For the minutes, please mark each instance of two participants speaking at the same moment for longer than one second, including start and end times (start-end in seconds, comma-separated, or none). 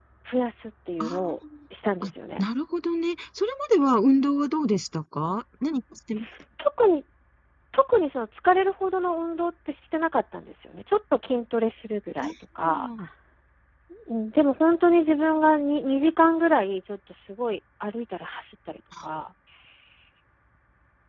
none